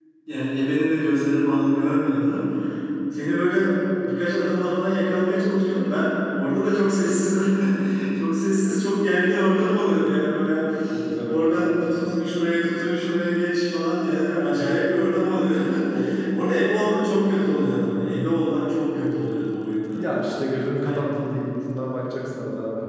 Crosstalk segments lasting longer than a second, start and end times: none

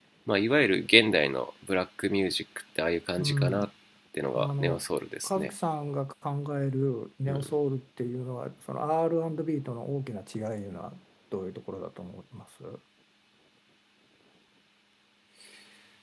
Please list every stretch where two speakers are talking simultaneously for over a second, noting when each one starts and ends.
none

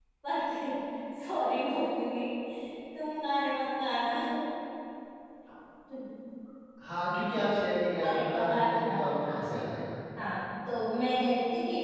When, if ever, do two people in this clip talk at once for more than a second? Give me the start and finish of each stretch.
8.0-9.4

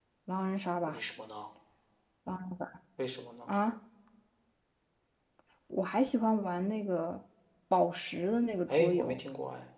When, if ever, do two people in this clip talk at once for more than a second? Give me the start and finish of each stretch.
none

